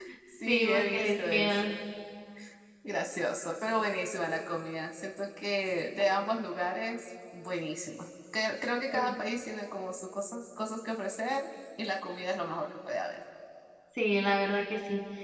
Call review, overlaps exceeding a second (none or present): present